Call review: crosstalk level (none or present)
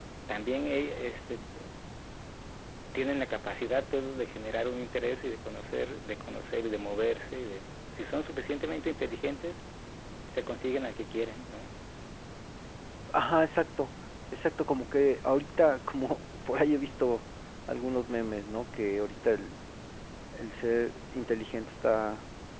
none